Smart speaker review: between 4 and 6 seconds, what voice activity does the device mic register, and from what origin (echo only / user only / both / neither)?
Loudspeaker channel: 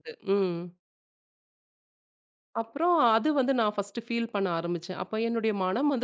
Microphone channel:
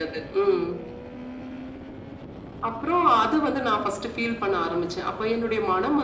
echo only